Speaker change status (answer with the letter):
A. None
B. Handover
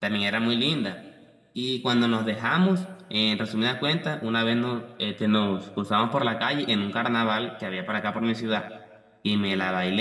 A